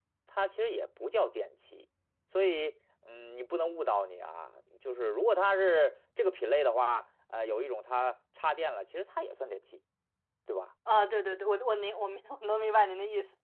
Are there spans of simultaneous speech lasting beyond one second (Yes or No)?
No